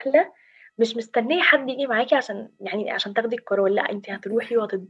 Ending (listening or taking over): listening